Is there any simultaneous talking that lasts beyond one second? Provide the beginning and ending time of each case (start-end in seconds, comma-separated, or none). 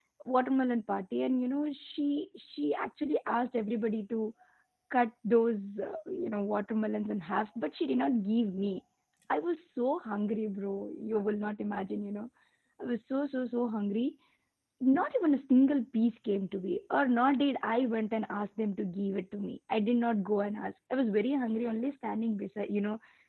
none